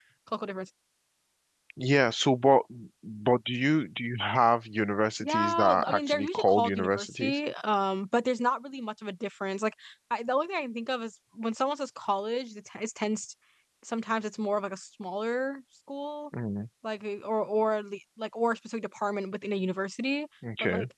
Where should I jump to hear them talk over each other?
5.2 s

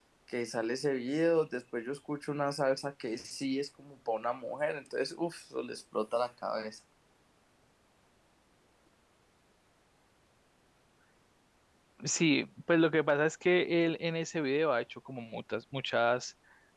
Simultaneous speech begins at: none

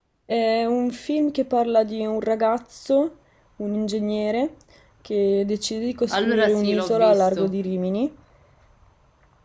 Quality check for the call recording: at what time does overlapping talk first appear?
6.1 s

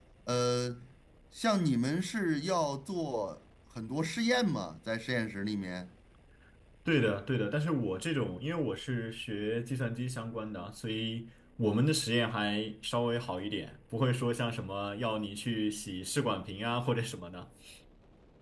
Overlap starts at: none

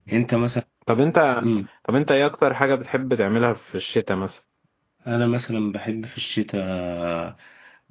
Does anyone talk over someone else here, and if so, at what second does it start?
none

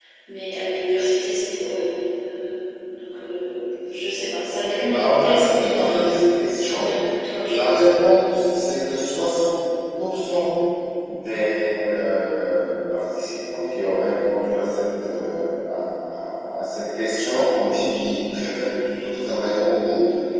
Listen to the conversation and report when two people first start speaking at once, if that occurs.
4.7 s

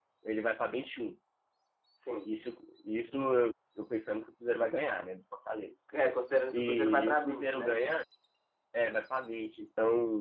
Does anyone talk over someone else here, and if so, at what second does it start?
6.5 s

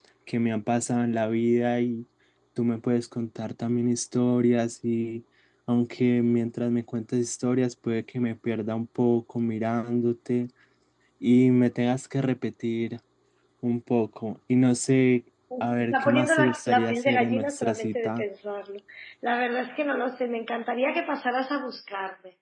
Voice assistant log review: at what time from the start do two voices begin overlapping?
15.5 s

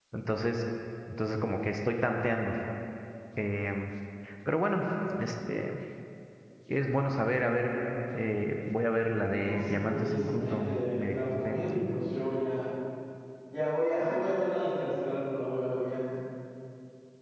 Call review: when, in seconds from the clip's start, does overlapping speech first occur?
9.4 s

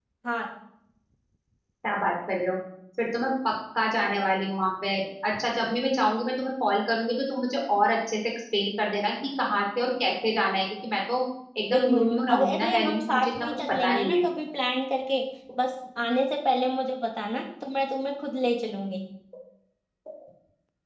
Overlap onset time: 11.7 s

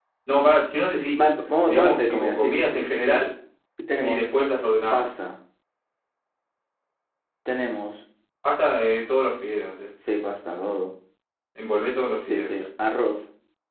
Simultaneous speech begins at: 1.7 s

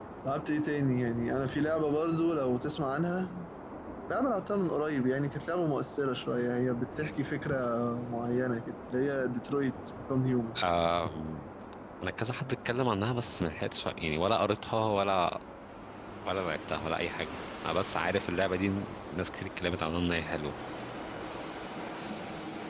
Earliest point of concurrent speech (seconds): none

